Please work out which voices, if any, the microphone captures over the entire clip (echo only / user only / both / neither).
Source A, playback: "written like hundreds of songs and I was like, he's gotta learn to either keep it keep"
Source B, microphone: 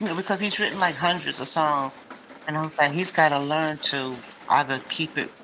echo only